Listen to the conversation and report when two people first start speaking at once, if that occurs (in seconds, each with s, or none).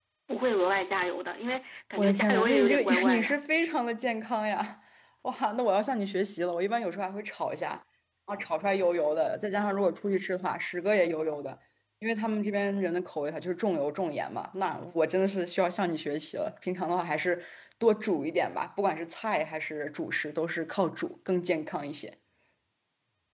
2.0 s